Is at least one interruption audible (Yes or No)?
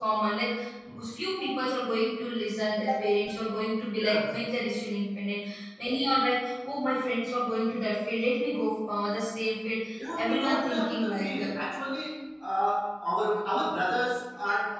Yes